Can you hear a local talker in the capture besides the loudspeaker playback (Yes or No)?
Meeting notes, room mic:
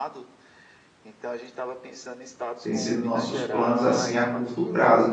Yes